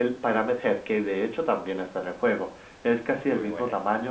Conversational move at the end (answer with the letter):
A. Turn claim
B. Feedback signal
B